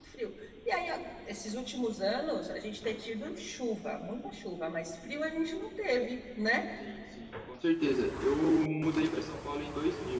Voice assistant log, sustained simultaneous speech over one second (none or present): none